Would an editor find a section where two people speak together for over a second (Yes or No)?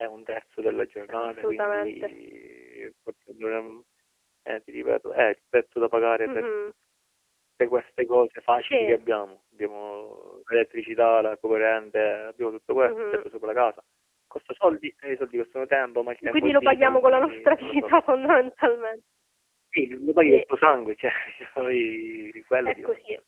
Yes